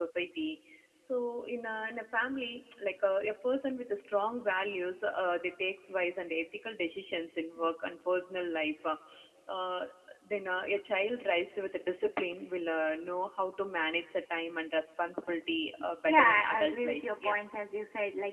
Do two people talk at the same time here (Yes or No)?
Yes